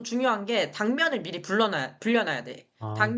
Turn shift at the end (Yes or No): No